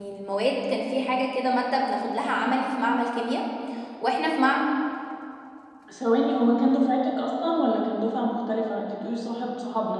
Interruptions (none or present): none